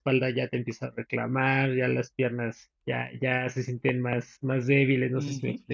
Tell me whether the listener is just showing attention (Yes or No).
No